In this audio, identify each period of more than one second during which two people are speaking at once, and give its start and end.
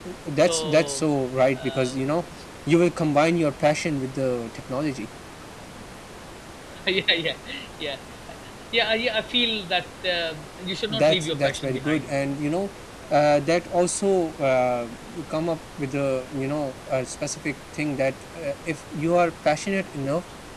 10.9-12.1

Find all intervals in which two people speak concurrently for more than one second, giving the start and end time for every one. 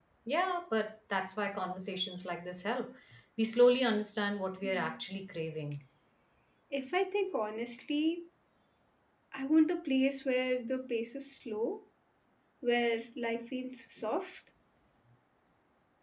none

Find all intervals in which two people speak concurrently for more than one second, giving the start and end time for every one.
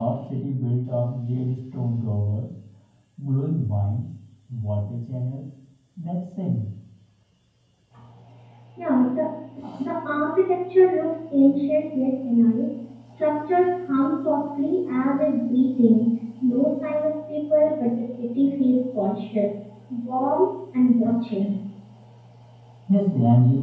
none

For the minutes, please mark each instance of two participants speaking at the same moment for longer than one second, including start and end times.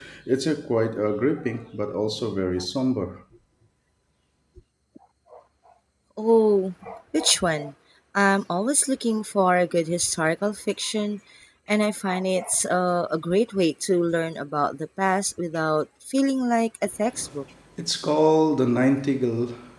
none

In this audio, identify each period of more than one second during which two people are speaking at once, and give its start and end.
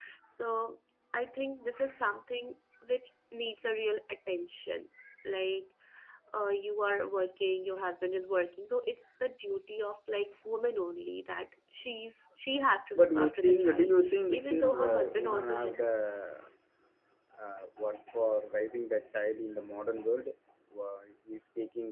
13.0-15.8

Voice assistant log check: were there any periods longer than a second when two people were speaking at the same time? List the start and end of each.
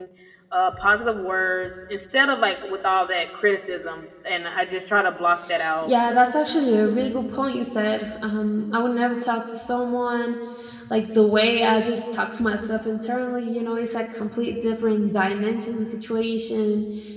none

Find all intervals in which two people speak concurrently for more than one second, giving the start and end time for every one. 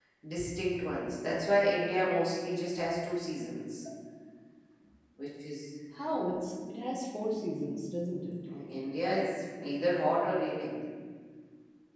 none

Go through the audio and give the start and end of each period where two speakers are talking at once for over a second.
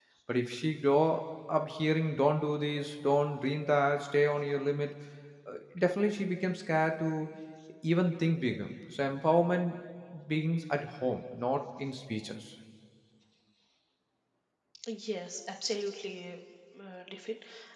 none

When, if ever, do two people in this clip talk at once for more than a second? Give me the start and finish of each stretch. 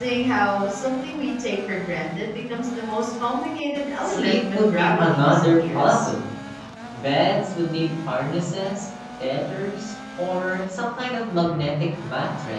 4.0-6.1

